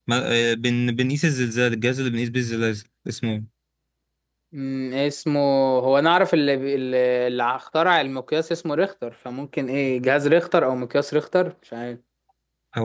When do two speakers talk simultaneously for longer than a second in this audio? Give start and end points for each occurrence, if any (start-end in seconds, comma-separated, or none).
none